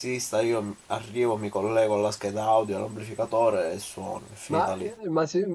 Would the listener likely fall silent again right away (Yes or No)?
No